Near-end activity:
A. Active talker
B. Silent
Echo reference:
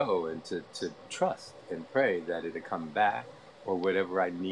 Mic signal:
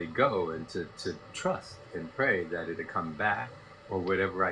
B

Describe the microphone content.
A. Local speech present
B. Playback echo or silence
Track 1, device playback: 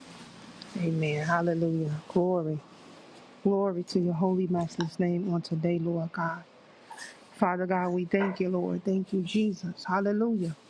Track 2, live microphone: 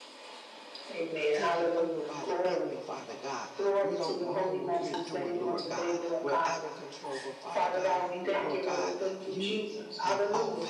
A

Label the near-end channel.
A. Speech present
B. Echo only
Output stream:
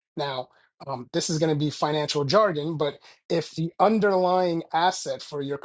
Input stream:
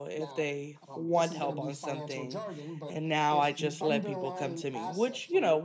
A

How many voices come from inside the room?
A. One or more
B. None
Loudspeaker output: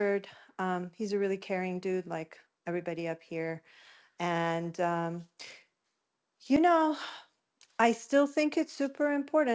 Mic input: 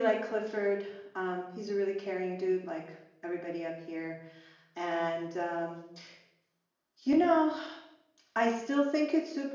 B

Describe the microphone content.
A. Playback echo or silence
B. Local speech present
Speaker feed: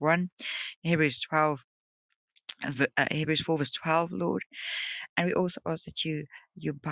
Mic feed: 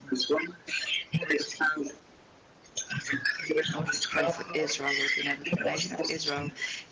B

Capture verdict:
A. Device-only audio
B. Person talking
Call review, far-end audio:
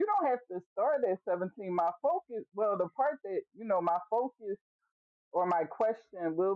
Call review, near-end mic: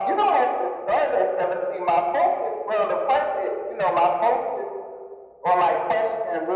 A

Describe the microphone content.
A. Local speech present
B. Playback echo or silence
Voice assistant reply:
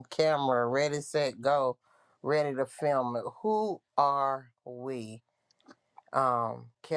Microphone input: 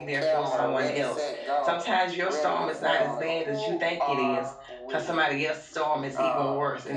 A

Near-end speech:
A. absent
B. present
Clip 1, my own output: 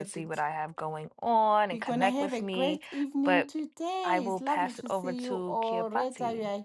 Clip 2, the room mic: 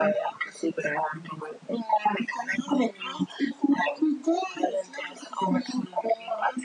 A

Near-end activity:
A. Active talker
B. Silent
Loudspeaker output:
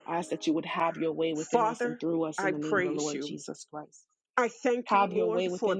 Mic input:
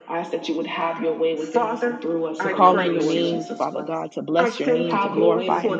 A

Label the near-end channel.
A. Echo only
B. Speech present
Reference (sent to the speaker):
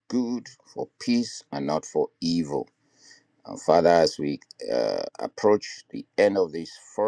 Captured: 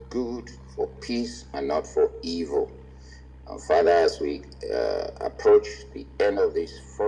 A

